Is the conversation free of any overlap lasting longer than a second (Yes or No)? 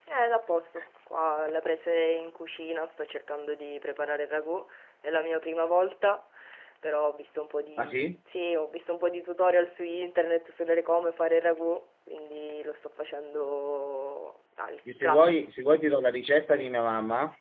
Yes